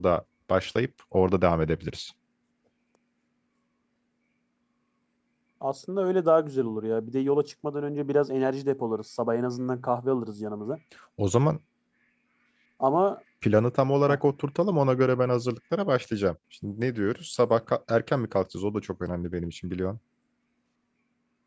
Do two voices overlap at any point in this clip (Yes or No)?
No